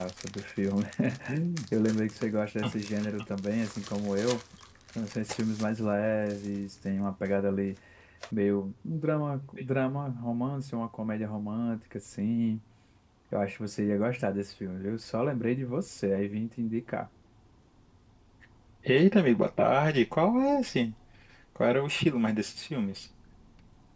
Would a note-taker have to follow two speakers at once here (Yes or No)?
No